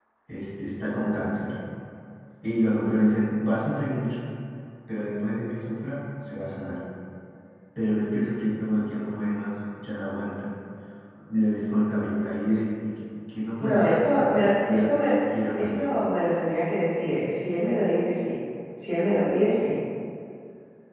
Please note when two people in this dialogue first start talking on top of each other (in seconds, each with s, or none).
13.6 s